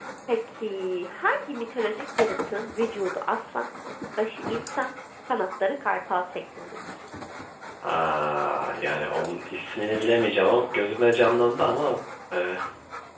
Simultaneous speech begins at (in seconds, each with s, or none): none